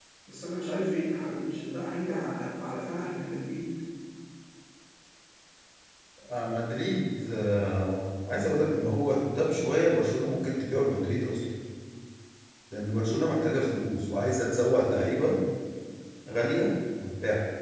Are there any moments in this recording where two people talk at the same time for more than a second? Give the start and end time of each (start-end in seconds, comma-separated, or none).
none